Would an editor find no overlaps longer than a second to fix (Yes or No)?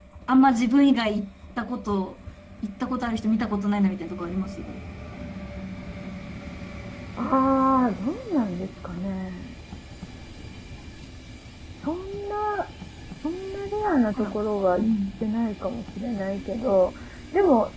Yes